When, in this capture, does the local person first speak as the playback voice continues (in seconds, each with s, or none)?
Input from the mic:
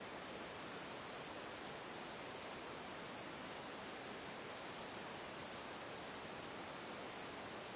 none